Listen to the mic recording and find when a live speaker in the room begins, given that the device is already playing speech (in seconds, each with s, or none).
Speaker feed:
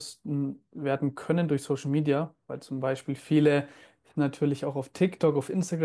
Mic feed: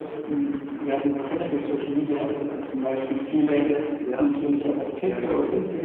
4.0 s